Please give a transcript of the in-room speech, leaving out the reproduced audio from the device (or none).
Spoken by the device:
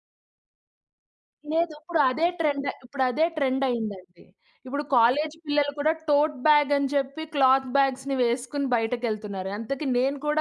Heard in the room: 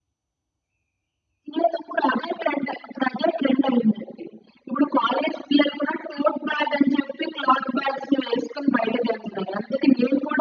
none